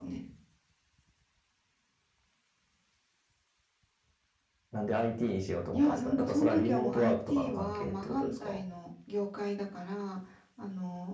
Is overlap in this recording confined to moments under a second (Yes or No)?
No